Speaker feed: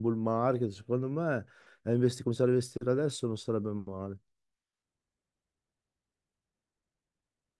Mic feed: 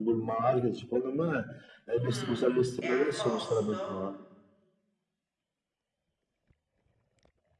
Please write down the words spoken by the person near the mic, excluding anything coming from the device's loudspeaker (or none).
Mm. E ha un costo?